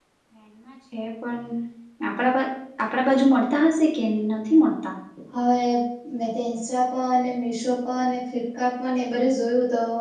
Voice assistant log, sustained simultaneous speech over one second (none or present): none